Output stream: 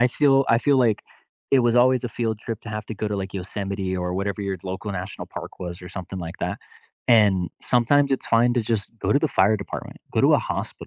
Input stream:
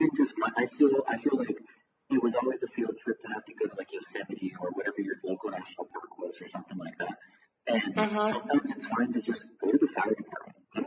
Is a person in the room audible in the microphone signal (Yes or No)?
Yes